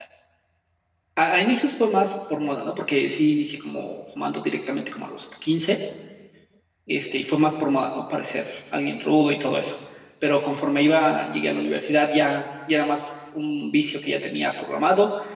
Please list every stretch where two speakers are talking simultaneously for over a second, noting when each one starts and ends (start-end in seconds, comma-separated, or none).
none